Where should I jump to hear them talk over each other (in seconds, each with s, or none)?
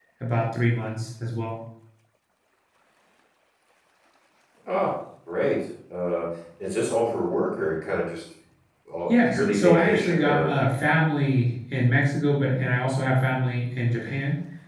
9.1 s